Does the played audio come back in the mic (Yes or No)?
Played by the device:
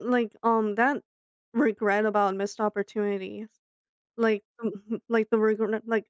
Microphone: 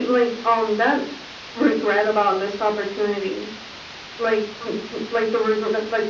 Yes